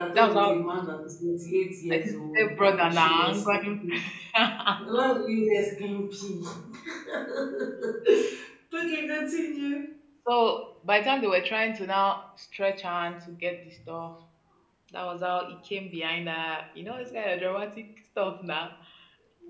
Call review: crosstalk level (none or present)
present